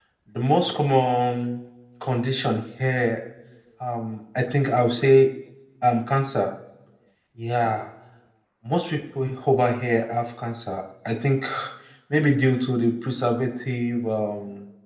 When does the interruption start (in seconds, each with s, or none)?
none